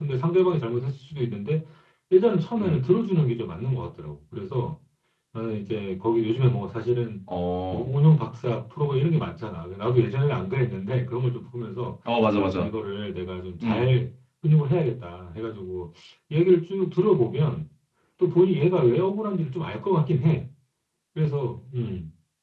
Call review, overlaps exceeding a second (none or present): none